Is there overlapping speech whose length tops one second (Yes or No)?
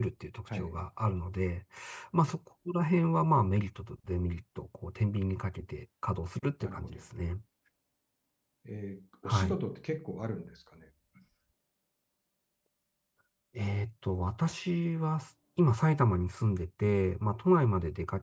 No